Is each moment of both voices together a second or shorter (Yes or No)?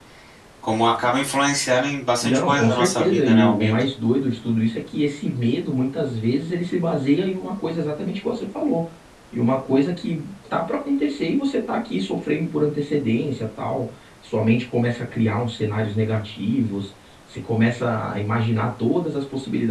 No